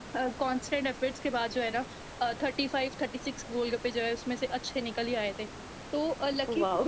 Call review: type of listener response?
listening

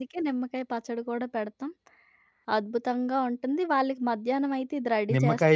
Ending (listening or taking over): taking over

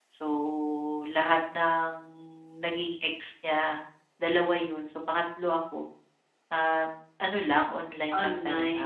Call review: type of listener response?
taking over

